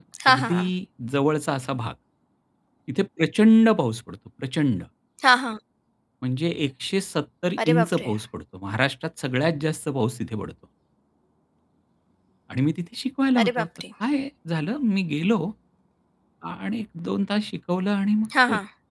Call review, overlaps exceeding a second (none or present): none